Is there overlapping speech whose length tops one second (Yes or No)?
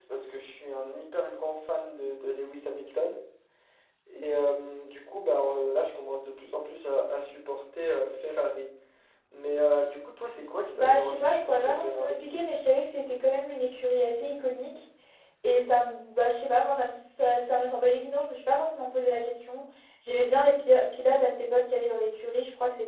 Yes